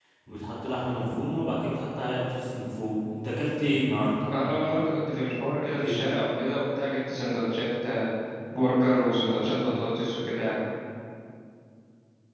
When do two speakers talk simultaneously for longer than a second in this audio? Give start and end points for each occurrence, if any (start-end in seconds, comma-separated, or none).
none